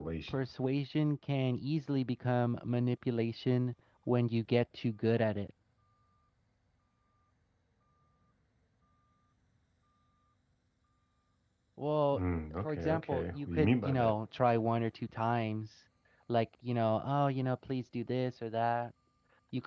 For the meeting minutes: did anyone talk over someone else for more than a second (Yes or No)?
Yes